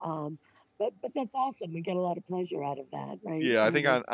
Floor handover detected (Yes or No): Yes